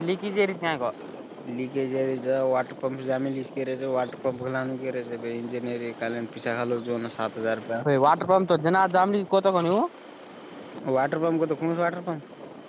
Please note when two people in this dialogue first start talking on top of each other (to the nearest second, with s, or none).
none